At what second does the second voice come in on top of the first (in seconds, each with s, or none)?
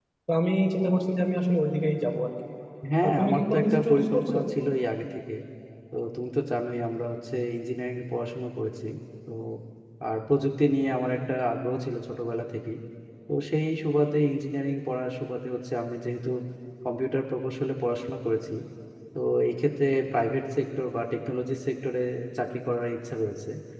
3.0 s